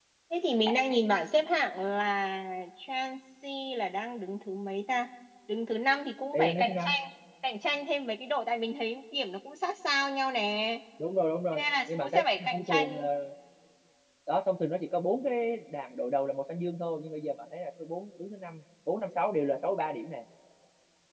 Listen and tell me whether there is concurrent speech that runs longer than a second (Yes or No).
Yes